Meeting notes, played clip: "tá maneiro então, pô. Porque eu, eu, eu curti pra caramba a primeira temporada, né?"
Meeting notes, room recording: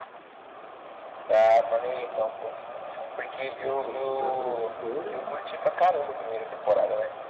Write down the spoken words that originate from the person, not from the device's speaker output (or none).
dessas superprodutoras